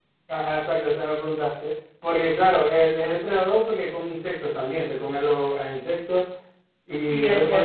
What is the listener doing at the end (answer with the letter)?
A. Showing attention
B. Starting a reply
B